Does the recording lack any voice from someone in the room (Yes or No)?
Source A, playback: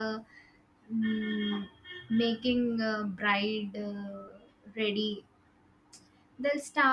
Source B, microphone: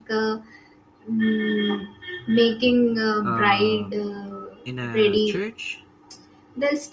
No